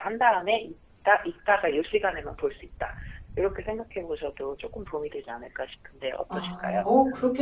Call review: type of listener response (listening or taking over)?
taking over